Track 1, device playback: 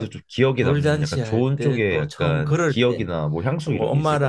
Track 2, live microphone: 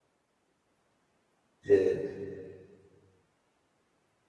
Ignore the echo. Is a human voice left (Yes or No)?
Yes